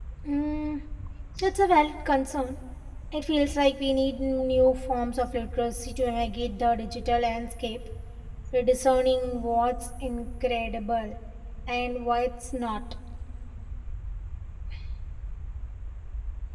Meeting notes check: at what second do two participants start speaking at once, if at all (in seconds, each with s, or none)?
none